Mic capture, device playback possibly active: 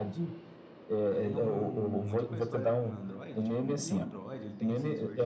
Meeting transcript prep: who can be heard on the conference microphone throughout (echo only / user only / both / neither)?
both